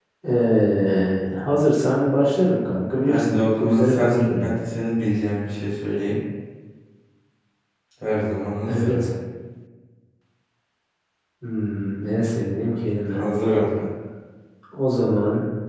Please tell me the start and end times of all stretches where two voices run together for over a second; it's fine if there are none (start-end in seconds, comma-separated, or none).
3.0-4.6